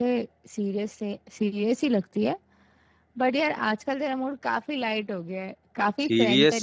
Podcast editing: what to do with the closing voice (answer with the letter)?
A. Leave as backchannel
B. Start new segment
B